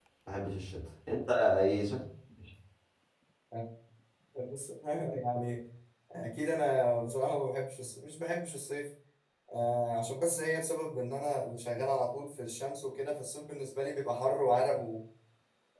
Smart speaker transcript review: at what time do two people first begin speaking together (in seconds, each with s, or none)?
none